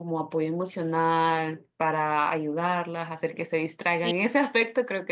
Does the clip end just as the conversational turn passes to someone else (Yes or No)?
No